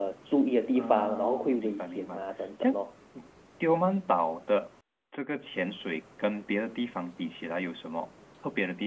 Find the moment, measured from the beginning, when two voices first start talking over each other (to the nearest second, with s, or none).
1 s